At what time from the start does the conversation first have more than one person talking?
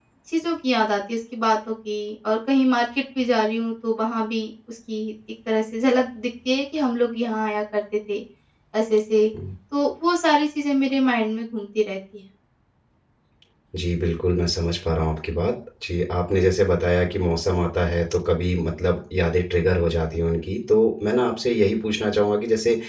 none

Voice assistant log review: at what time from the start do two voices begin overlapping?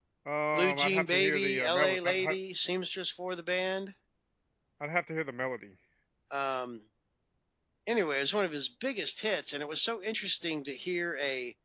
0.5 s

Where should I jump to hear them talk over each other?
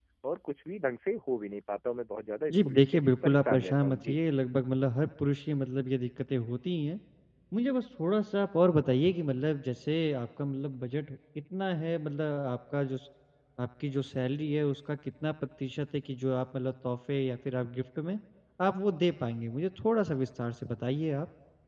2.5 s

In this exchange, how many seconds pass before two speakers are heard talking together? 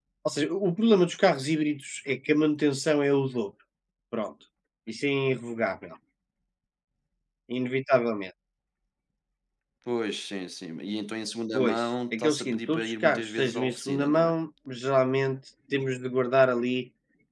11.5 s

